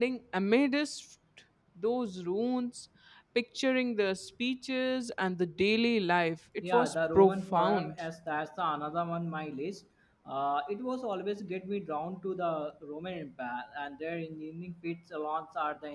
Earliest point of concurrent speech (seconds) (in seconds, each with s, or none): 6.6 s